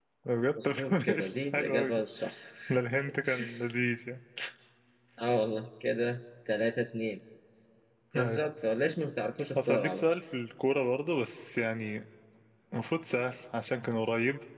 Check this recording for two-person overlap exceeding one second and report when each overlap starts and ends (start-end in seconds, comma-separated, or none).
0.6-2.0